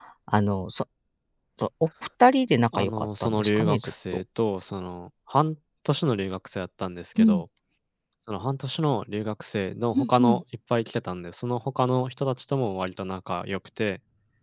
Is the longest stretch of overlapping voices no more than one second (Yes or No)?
No